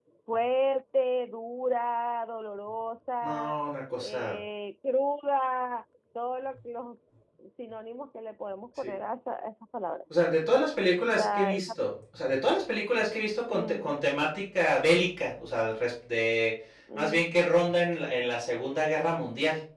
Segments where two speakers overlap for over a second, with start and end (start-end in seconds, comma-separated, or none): none